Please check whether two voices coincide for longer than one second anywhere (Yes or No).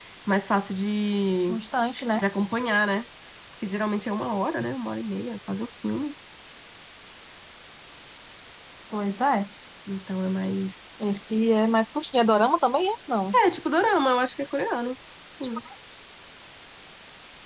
No